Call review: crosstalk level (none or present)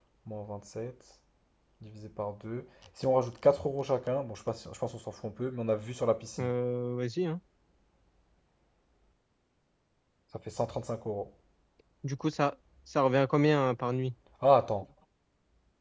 none